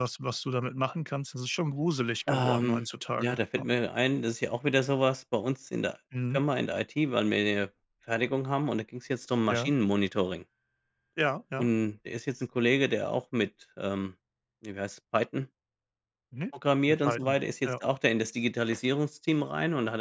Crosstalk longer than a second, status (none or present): present